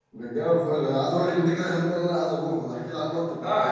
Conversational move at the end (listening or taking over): taking over